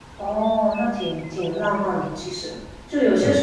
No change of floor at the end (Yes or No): Yes